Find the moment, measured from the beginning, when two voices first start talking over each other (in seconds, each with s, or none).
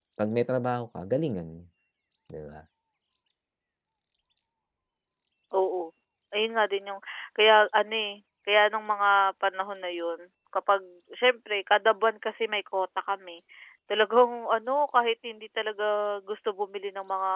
none